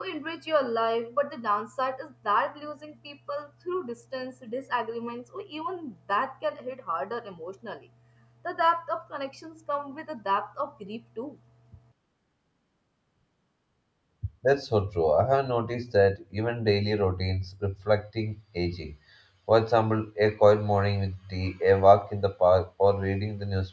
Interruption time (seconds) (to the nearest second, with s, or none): none